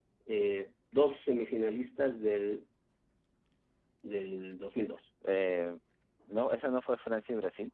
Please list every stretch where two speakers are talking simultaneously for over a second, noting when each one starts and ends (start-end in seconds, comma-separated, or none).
none